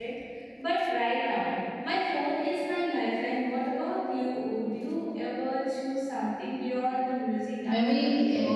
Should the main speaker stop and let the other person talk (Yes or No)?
Yes